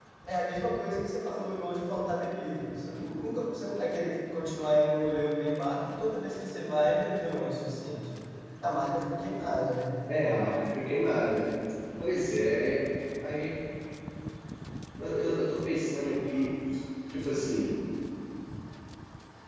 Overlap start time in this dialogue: none

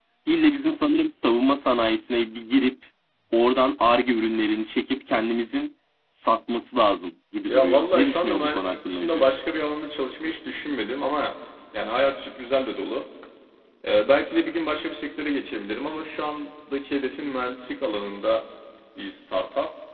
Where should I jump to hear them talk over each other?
7.5 s

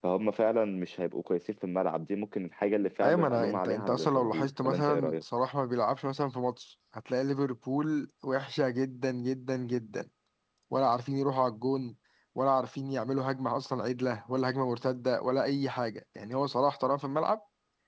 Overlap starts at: 3.0 s

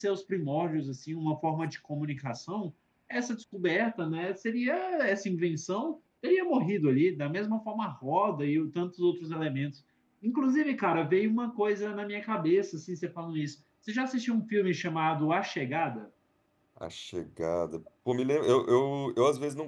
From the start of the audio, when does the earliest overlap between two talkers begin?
none

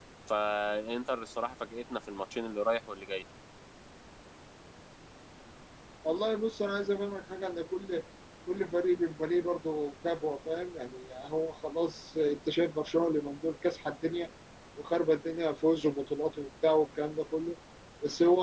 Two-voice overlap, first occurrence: none

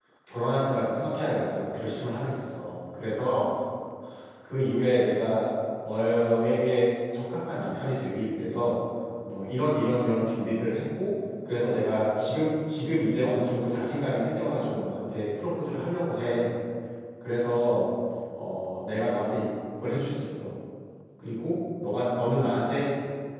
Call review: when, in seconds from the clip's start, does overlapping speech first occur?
none

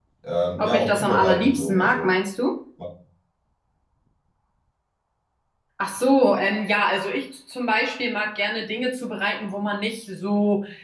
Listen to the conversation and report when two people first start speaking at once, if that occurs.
0.6 s

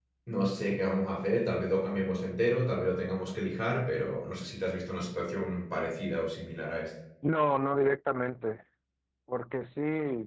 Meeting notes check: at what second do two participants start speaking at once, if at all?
none

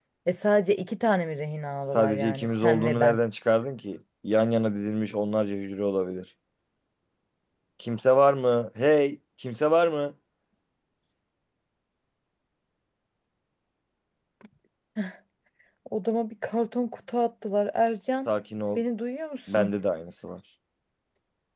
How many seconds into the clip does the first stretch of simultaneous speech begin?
1.9 s

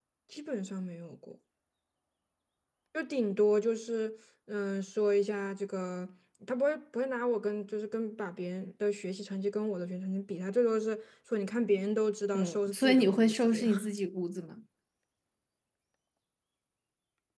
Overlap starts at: 12.3 s

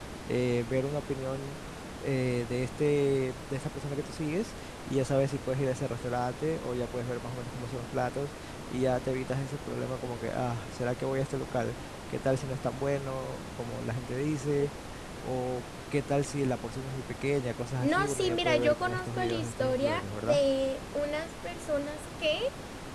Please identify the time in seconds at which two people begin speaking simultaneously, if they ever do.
17.8 s

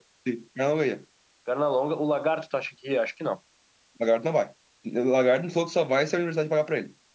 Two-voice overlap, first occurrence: none

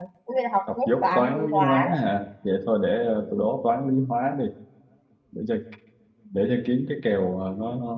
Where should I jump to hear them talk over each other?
0.8 s

